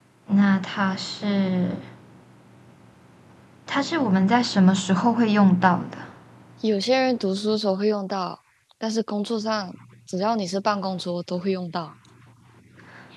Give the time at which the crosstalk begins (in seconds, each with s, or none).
none